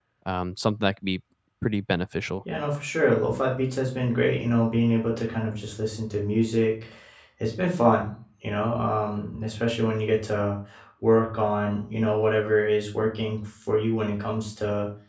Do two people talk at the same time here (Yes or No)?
No